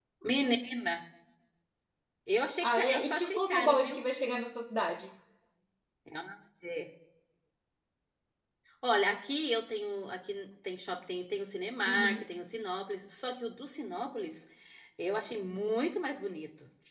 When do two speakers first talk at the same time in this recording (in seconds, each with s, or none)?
2.6 s